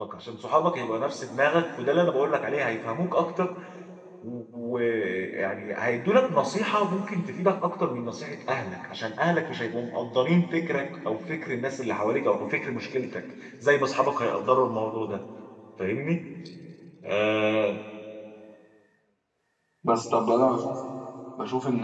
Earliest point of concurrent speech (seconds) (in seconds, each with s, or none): none